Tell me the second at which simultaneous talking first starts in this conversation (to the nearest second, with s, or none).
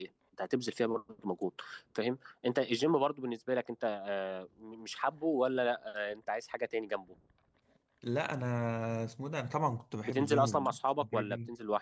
10 s